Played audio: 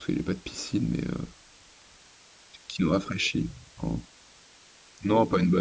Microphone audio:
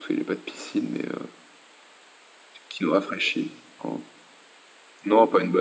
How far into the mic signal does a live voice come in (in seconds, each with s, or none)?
none